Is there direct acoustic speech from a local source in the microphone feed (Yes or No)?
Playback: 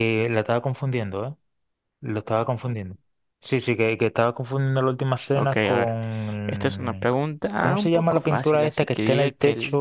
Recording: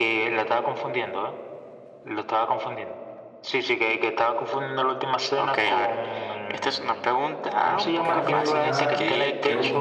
Yes